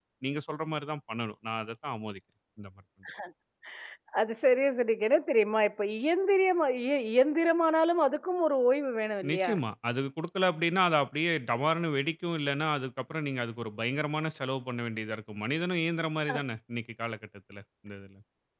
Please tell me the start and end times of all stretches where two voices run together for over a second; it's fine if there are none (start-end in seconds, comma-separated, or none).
none